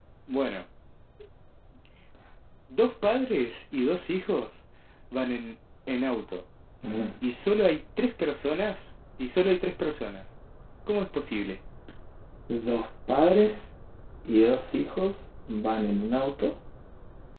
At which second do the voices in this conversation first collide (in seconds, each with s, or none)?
none